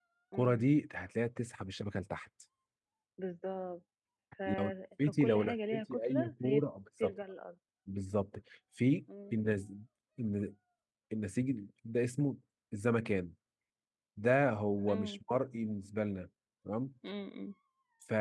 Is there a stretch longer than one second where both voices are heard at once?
Yes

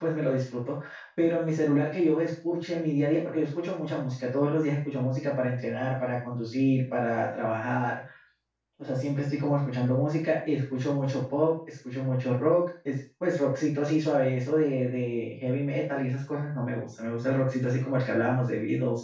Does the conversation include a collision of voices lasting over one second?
No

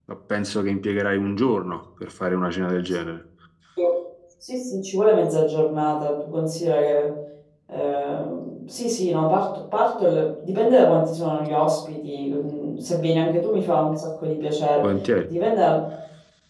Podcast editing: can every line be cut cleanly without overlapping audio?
Yes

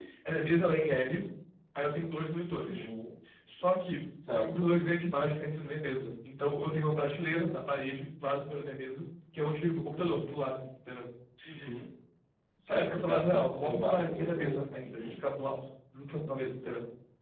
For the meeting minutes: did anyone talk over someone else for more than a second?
Yes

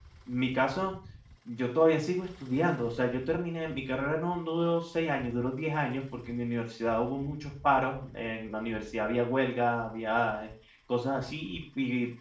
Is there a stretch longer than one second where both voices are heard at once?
No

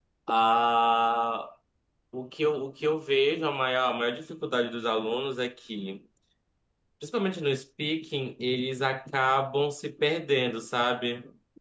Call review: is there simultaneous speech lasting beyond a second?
No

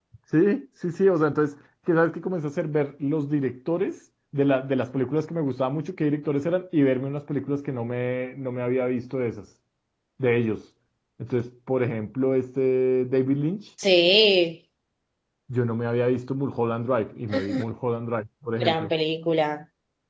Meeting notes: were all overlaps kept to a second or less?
Yes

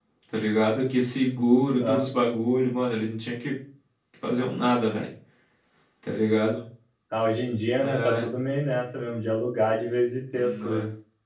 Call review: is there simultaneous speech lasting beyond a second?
No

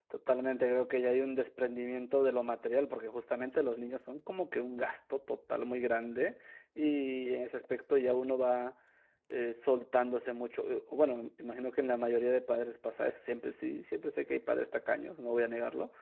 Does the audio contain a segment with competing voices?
No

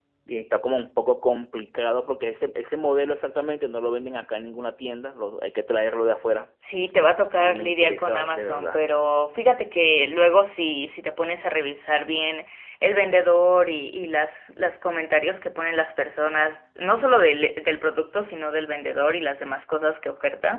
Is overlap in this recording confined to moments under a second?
No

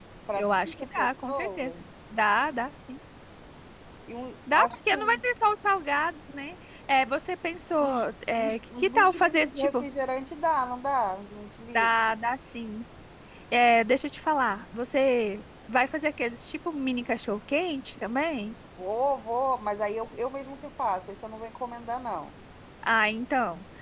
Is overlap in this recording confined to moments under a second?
No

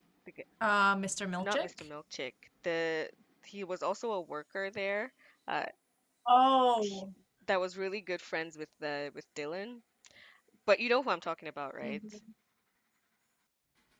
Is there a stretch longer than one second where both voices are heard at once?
No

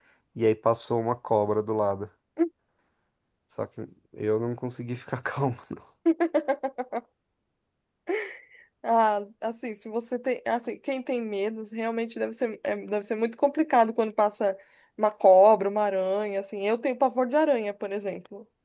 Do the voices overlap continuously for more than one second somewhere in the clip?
No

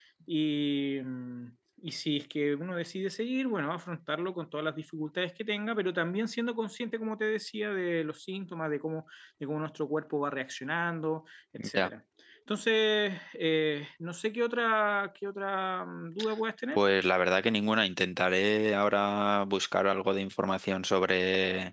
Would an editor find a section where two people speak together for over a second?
No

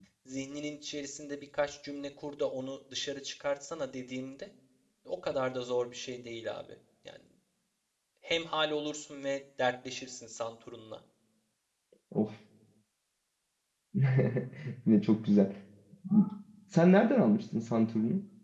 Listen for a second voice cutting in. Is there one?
No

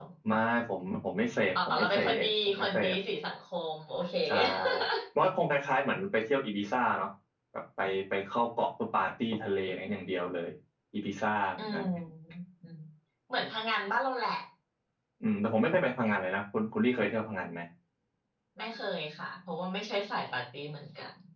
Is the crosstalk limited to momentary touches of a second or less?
No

